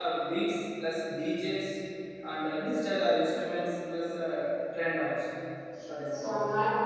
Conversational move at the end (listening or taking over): taking over